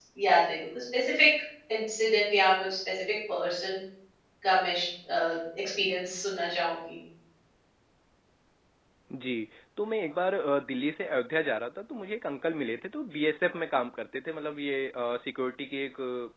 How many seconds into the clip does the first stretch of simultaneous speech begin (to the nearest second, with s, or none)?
none